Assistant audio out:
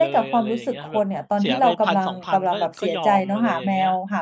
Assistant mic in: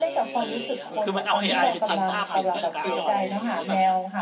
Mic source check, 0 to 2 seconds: both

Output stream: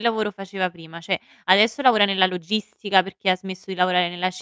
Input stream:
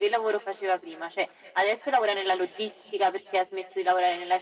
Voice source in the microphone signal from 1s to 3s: echo only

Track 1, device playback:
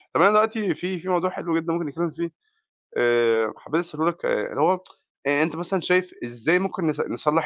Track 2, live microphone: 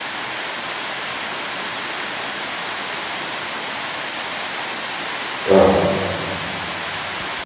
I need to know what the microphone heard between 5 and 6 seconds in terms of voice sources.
user only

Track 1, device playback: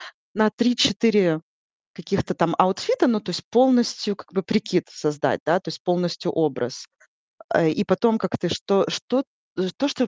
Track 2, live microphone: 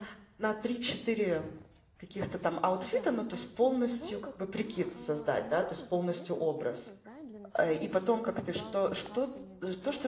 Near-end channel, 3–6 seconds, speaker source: both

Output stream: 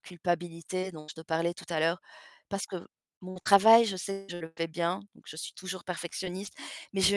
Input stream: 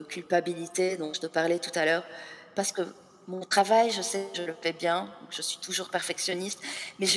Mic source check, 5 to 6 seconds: echo only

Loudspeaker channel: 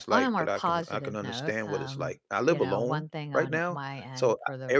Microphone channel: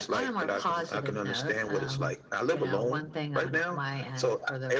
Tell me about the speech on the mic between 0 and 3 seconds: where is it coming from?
echo only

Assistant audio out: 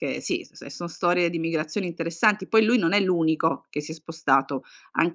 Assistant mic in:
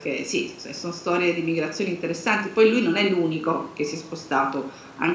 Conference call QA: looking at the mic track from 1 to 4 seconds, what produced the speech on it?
echo only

